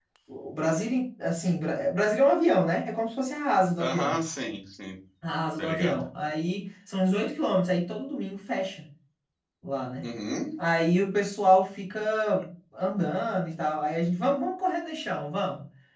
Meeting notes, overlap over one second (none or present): none